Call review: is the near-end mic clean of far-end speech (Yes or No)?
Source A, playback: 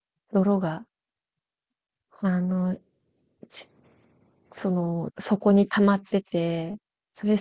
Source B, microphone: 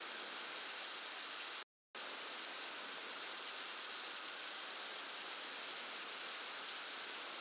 Yes